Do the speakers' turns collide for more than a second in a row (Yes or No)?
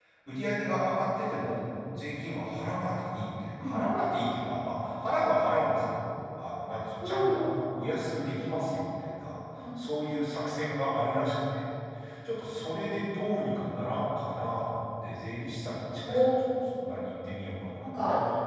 No